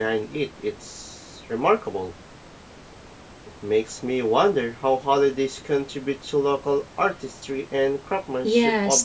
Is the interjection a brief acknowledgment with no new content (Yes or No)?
No